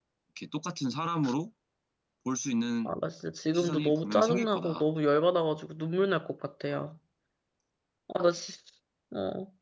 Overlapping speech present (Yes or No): Yes